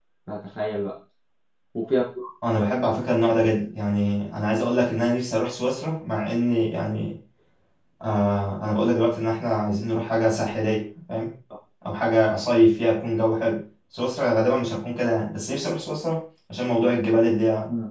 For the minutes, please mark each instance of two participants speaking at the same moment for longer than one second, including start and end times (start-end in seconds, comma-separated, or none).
none